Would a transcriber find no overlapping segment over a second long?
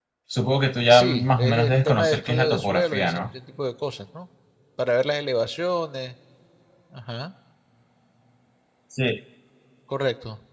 No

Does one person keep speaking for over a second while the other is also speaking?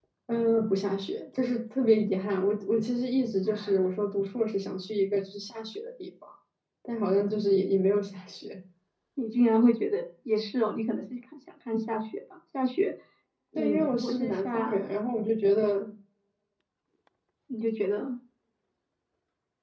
Yes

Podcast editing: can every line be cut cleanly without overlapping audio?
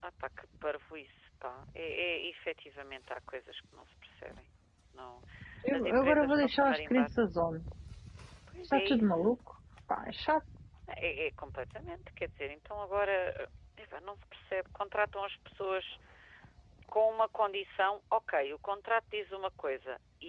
No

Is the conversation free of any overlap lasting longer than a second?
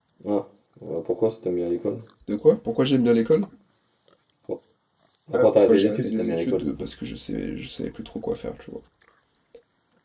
No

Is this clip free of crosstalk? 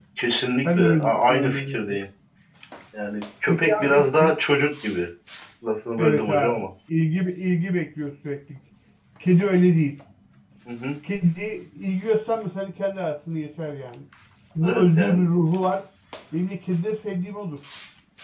No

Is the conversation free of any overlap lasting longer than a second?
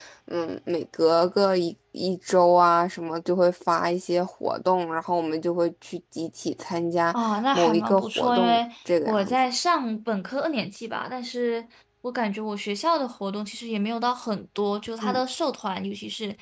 No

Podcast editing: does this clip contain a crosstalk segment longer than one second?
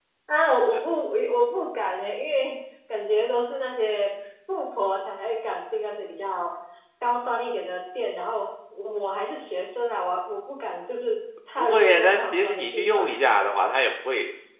Yes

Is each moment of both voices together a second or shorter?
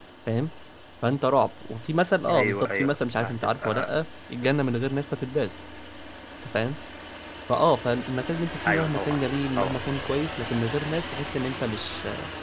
No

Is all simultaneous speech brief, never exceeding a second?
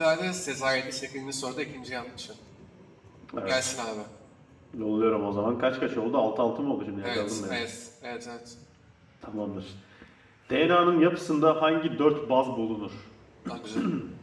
Yes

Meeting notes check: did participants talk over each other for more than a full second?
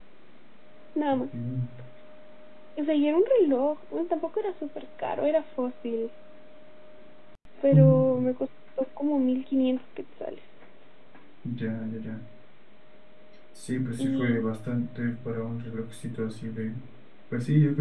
No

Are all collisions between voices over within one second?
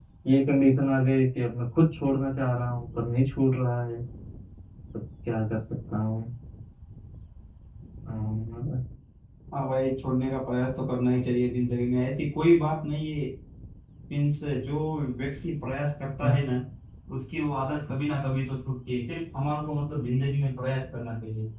Yes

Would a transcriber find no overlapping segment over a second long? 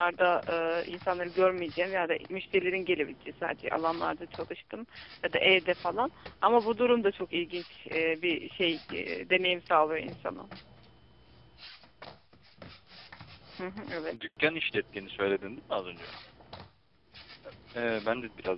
Yes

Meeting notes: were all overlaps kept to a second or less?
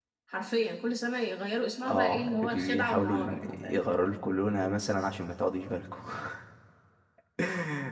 No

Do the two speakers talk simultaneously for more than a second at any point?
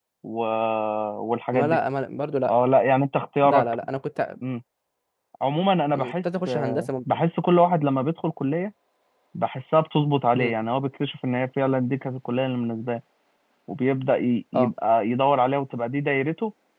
Yes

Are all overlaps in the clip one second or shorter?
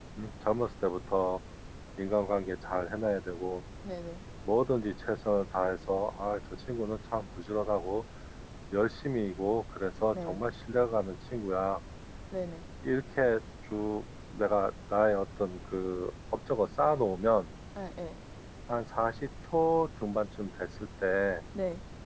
Yes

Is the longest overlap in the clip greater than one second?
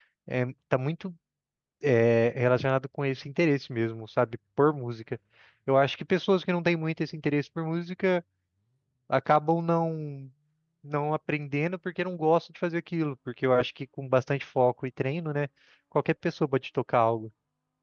No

